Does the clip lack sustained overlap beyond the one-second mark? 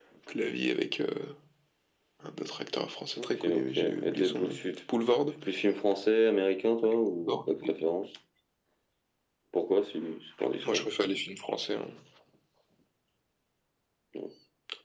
No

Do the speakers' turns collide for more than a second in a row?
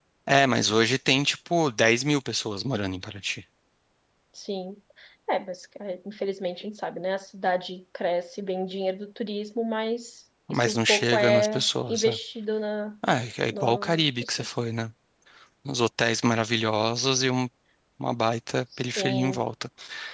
Yes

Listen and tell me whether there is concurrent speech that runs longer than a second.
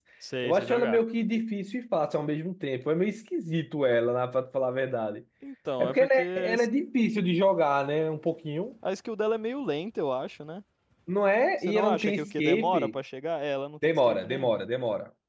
Yes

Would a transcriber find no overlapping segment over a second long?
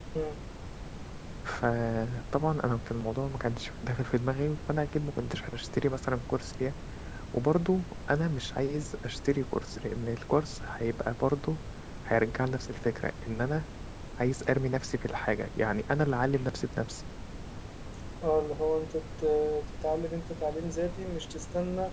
Yes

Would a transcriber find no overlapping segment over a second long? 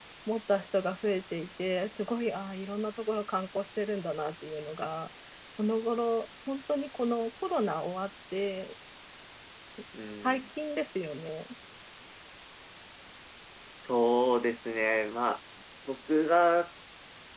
Yes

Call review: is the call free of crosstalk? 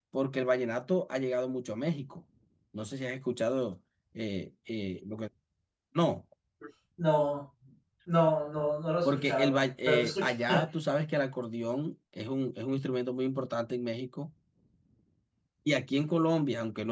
No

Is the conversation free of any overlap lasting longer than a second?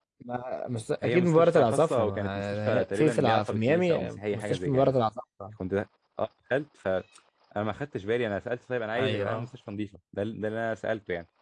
No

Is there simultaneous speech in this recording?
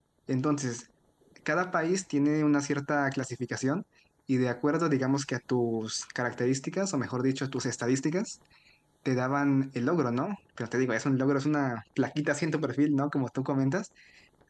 No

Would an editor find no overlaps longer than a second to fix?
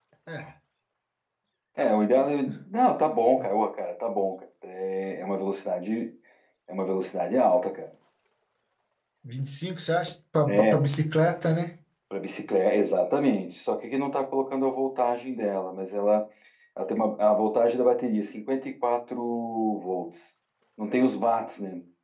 Yes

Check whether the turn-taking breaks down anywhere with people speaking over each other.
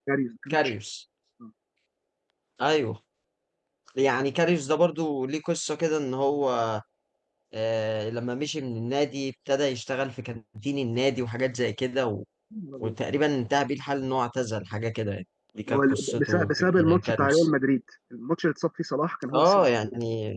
Yes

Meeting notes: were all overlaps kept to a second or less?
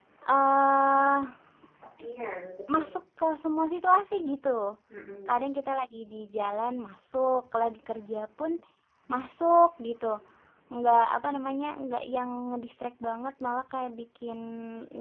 Yes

